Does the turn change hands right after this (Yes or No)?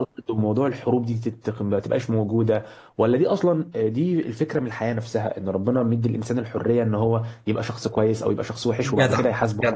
Yes